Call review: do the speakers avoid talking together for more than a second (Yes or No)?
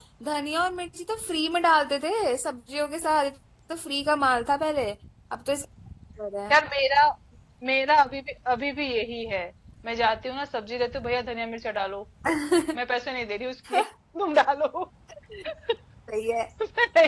Yes